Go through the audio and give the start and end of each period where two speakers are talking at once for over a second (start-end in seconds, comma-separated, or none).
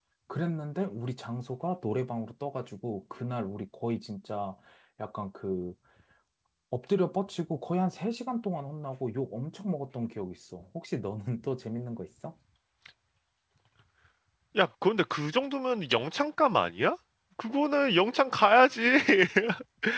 none